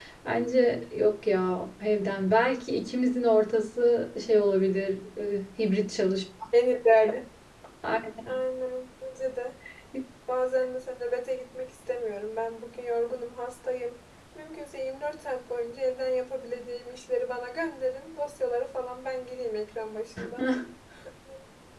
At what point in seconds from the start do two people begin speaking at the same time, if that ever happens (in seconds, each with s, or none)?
none